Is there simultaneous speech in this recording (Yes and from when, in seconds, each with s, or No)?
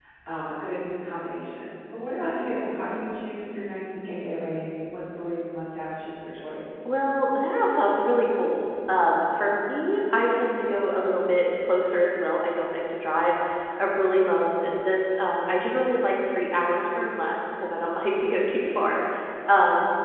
No